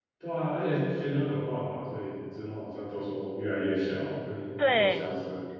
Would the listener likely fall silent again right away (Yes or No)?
No